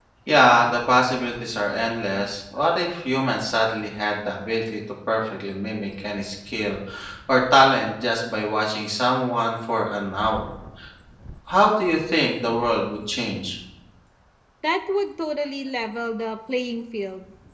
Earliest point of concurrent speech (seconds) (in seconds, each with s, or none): none